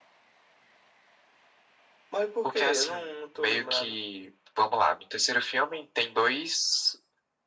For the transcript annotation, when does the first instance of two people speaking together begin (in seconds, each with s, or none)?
2.4 s